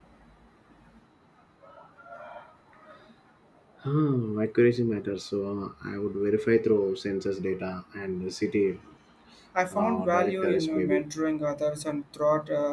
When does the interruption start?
10 s

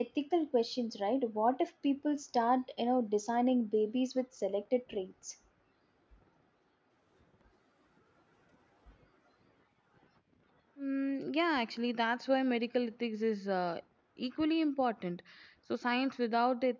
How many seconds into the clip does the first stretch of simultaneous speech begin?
none

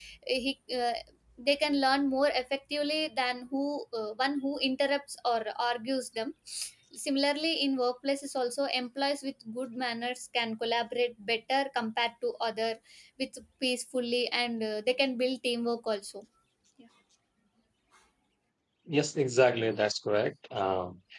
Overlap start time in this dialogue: none

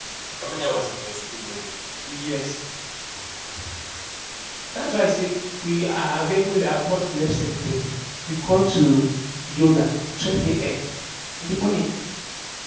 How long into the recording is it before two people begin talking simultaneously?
none

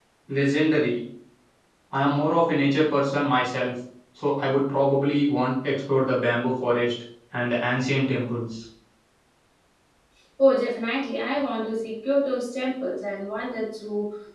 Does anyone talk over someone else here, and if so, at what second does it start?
none

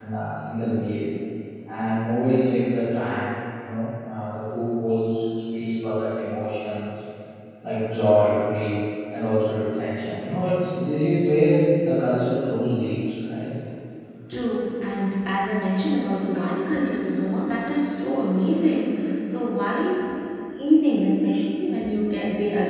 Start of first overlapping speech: none

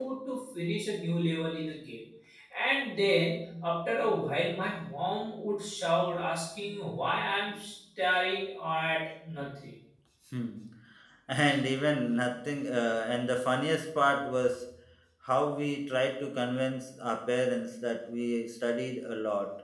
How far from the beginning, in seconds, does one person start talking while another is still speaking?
none

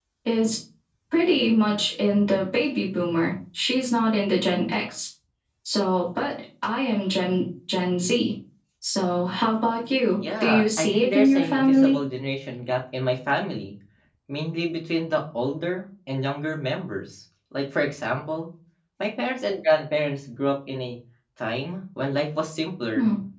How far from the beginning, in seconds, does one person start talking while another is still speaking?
10 s

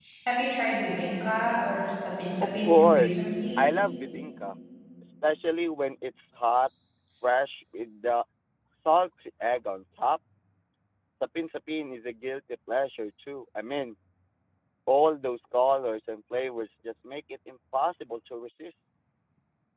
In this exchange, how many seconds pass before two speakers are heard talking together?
2 s

